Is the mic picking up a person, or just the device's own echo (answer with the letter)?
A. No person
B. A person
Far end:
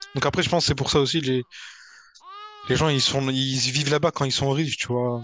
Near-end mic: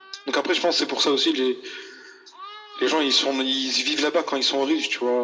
A